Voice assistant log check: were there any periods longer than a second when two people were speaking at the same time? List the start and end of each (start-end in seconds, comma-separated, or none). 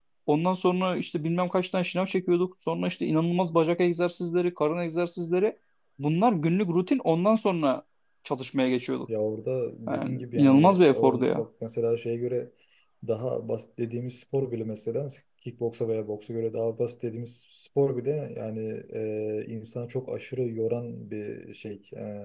9.9-11.4